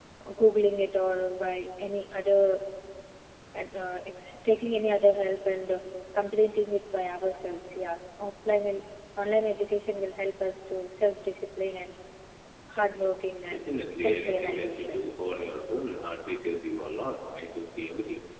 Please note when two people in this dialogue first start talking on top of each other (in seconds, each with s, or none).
13.5 s